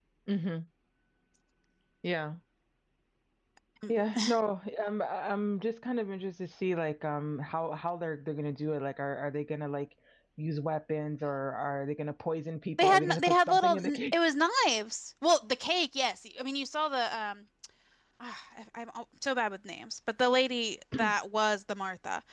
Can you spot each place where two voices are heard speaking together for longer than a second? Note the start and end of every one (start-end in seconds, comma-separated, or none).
12.8-14.1